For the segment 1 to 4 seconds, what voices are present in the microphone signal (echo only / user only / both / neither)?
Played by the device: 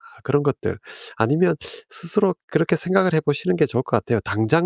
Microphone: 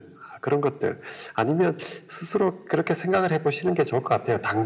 echo only